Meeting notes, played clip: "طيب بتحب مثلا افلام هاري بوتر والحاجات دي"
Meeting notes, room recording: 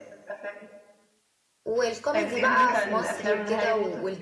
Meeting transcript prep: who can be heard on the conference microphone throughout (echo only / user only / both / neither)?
both